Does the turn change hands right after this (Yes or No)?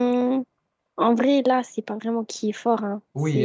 Yes